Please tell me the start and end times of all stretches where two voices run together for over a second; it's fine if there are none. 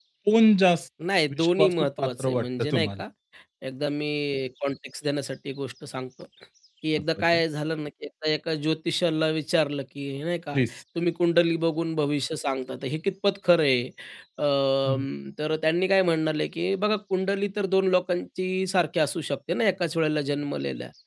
1.3-3.0

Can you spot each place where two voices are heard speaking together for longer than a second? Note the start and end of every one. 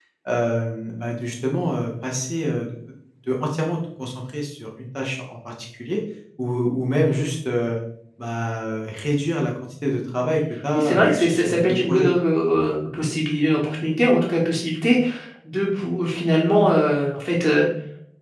10.7-12.1

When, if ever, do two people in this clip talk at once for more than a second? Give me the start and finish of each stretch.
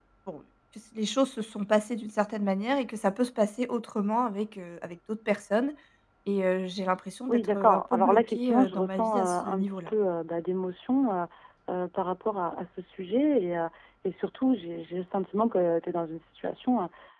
7.3-9.9

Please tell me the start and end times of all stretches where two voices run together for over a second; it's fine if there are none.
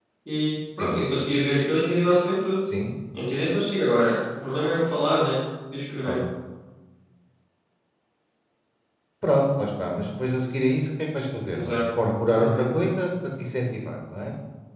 none

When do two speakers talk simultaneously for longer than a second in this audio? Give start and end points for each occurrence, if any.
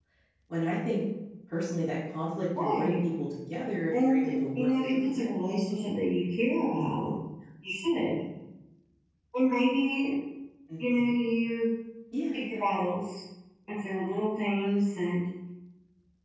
3.9-5.3

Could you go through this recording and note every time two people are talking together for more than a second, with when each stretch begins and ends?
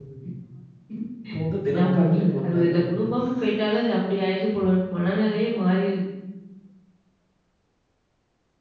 1.7-2.9

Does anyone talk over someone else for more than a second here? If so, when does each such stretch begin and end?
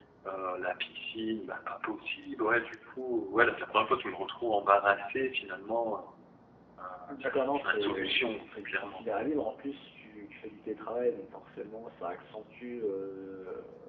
7.2-9.0

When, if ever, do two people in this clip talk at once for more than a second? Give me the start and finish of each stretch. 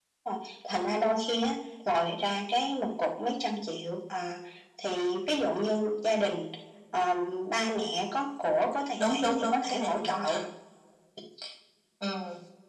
9.0-10.4

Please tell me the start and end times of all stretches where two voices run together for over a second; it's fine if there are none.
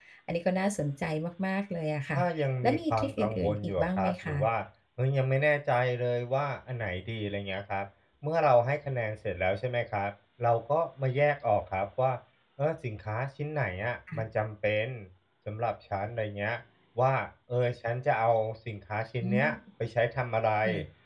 2.6-4.4

